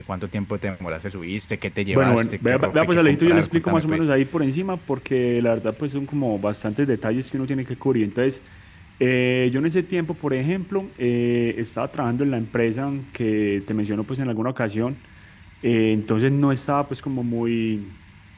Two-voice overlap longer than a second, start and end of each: 1.9-4.0

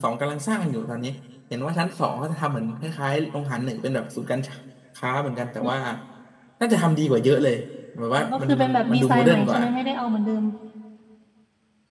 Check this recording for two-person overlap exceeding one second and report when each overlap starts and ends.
8.2-9.6

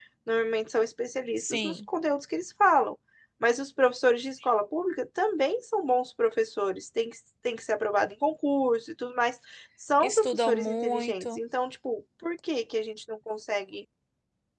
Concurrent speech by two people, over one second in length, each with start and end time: 10.0-11.4

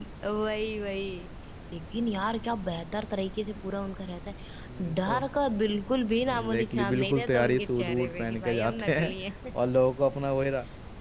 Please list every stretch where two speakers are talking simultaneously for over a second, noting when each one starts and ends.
6.3-9.1

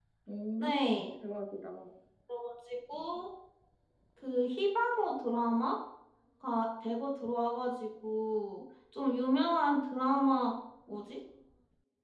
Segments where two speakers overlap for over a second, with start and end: none

